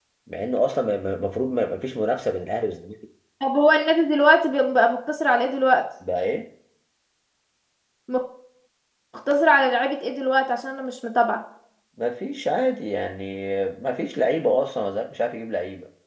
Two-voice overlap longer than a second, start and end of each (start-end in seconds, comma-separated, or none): none